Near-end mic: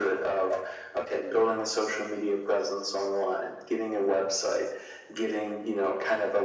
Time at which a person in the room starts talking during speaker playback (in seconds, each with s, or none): none